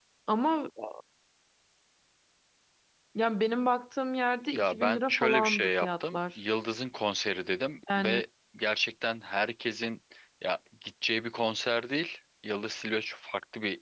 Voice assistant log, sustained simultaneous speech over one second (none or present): present